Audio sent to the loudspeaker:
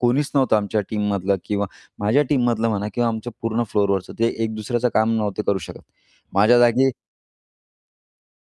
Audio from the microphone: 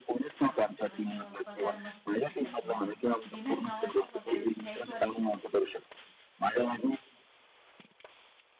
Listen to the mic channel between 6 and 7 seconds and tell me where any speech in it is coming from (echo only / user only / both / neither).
echo only